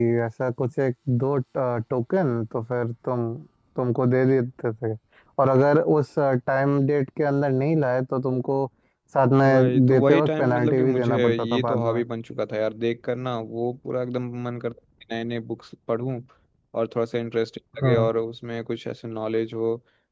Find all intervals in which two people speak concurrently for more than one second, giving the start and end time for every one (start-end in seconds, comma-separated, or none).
9.4-12.0